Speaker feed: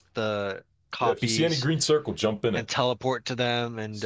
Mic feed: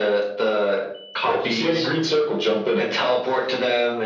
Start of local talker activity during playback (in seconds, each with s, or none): none